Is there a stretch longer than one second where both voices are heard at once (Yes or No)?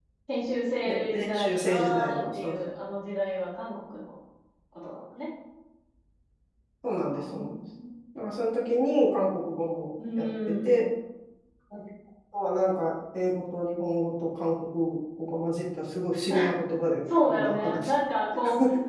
Yes